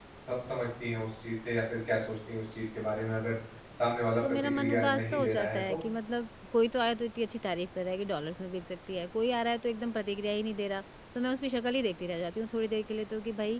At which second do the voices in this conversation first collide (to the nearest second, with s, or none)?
4 s